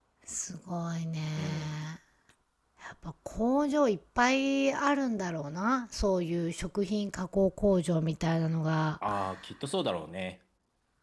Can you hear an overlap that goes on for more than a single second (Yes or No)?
No